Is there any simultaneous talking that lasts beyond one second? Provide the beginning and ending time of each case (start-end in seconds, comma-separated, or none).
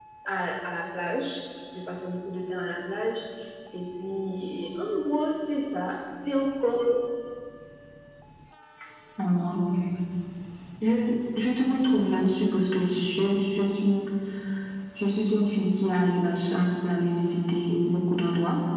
none